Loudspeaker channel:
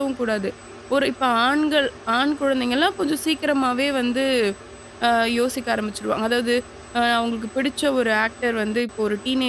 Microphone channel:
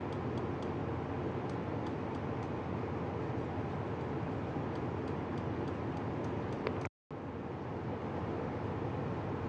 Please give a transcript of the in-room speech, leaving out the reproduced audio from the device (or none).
none